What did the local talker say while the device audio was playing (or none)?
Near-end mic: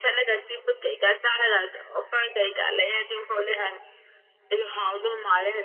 none